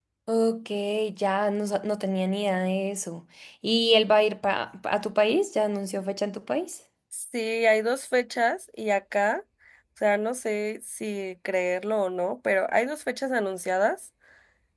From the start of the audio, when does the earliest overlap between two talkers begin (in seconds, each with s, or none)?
none